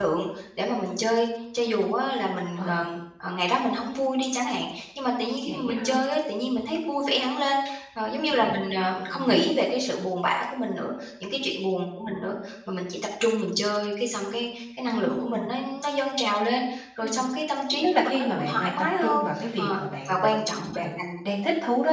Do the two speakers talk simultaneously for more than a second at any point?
Yes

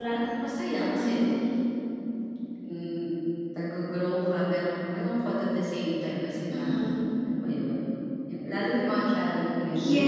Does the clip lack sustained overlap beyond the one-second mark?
Yes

